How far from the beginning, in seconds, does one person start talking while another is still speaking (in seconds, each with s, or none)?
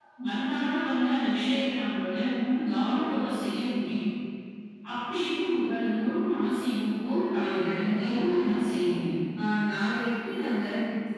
7.3 s